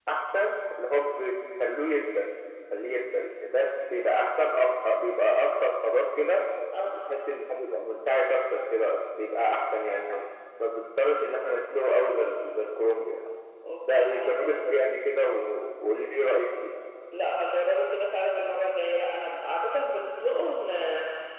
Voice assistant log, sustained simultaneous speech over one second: none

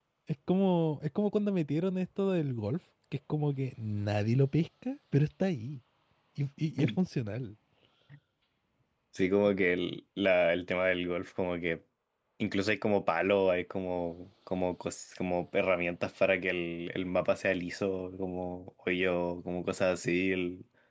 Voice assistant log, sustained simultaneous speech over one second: none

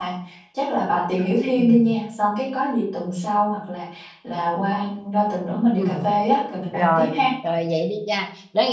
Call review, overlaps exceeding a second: none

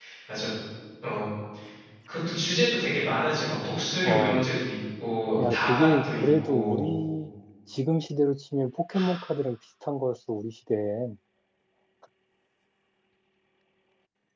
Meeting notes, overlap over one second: present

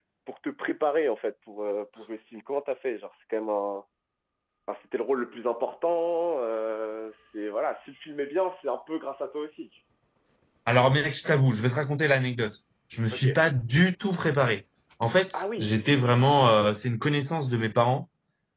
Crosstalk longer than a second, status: none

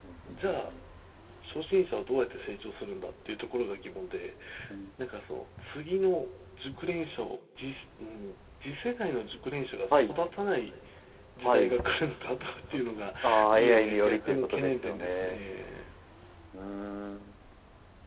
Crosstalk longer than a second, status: present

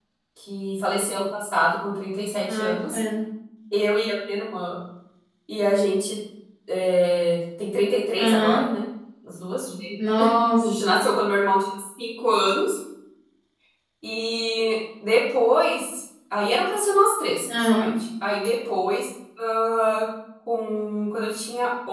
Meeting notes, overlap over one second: none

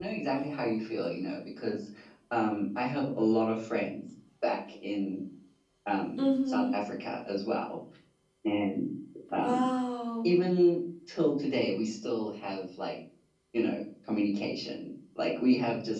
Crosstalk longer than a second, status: none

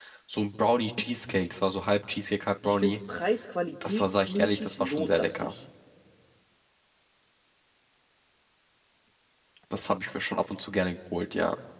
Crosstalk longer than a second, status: present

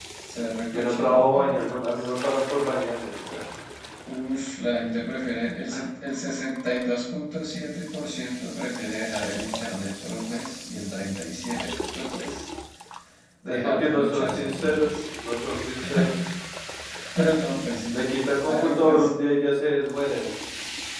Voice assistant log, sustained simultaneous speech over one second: present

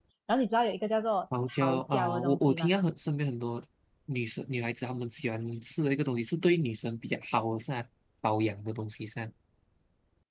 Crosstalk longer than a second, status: present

